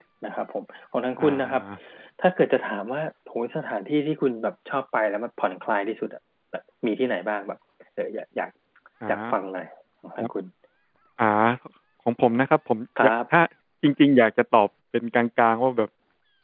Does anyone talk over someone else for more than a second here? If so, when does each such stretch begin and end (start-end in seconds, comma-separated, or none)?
none